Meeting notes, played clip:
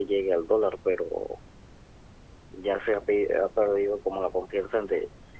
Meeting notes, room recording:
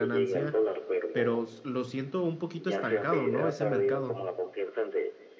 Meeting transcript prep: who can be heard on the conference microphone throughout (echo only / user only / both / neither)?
both